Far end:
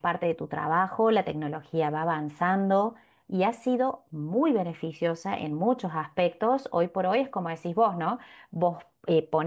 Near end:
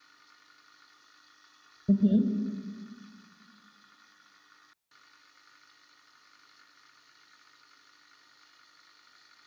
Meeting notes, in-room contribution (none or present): present